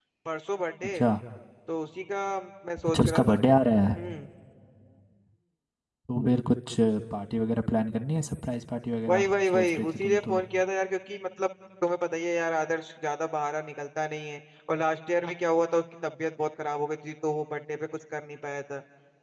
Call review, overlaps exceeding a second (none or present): present